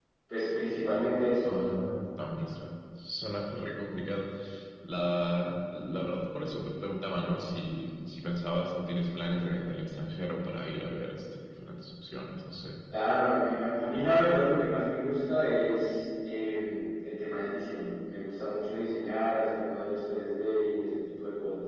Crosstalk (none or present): none